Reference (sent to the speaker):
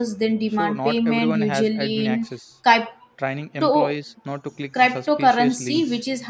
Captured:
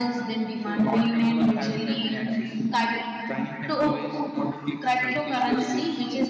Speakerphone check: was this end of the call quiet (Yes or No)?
Yes